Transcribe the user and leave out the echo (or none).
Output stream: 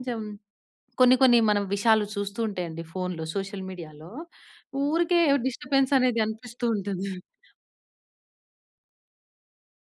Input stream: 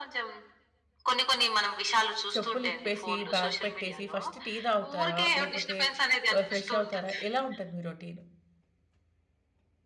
చెప్పులు ఇప్పేసి బ్యాగ్ పెట్టేసి ఫస్ట్ టీ తాగుతారా? లేకపోతే ఫ్రెష్ అవుతారా? ఎలా ఉంటది మీ రోటీన్.